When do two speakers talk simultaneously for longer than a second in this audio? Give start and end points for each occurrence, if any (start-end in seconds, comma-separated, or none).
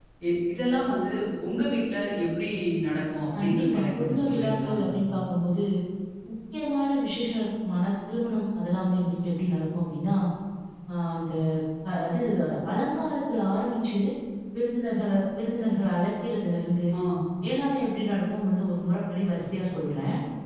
3.4-4.7